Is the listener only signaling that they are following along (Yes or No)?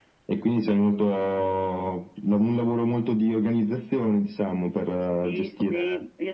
No